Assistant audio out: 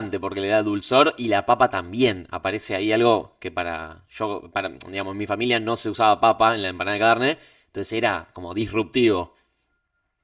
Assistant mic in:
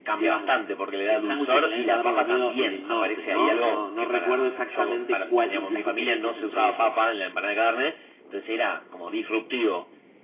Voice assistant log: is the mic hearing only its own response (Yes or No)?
No